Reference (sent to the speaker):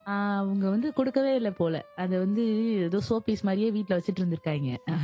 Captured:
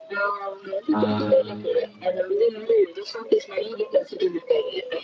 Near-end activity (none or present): present